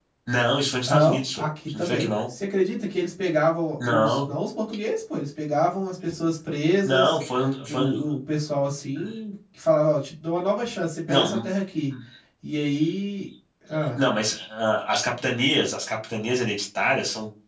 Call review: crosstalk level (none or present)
present